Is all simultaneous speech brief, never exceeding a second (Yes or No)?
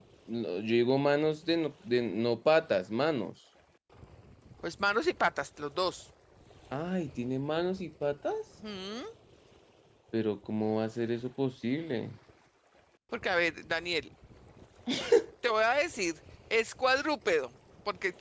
Yes